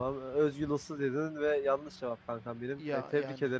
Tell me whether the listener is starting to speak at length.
No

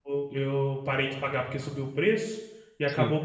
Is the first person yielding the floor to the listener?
No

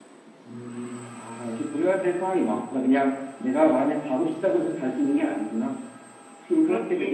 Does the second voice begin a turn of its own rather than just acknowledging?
Yes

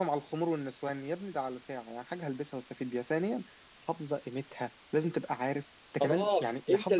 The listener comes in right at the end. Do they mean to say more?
Yes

